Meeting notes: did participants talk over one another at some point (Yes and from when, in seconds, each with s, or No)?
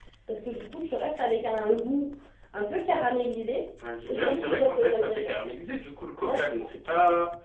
Yes, from 4.1 s